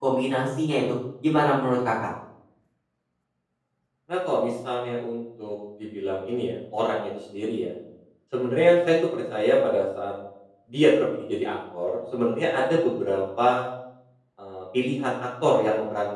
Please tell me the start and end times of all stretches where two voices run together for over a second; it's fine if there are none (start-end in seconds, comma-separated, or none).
none